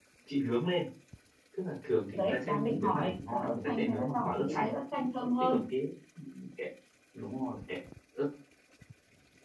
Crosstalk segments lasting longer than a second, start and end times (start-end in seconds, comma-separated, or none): 2.1-4.7